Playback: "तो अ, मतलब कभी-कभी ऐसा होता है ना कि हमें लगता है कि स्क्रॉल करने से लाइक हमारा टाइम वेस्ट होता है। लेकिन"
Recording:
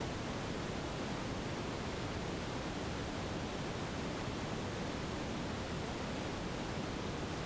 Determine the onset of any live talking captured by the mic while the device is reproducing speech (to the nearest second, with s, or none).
none